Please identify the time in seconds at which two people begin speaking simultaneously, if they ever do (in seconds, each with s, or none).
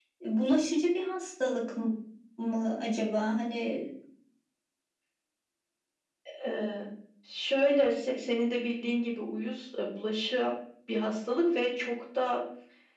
none